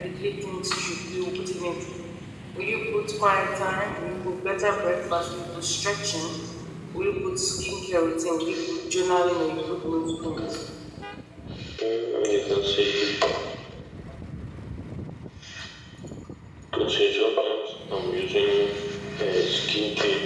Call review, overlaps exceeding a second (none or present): none